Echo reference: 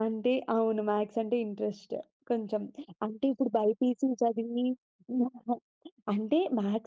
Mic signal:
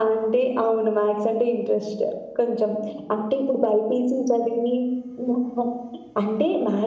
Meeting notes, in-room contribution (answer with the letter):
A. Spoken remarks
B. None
B